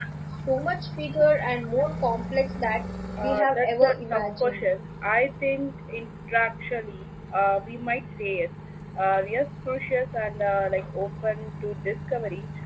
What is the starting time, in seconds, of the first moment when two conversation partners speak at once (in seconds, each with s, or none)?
3.2 s